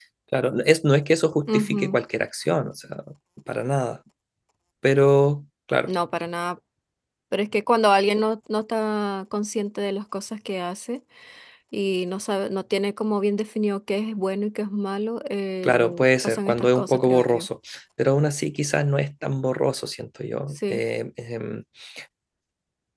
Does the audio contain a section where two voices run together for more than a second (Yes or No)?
Yes